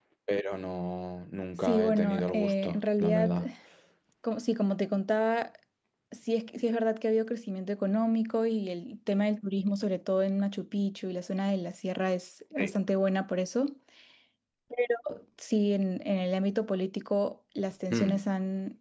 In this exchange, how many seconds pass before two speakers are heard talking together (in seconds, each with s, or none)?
1.6 s